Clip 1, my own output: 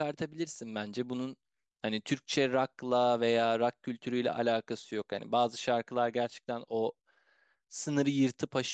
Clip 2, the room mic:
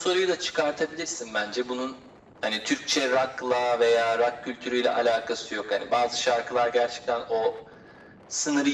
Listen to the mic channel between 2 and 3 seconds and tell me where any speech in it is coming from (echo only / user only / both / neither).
echo only